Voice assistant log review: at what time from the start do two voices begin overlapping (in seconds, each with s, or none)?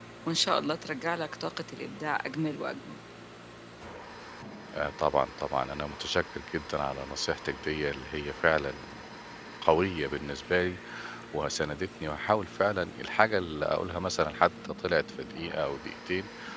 none